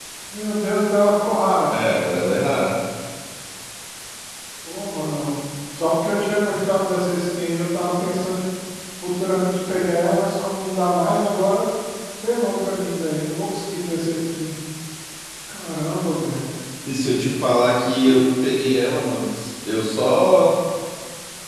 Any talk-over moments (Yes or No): No